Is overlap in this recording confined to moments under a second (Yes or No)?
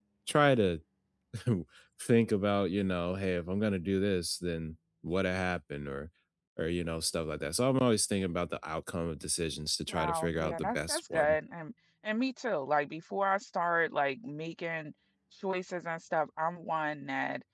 No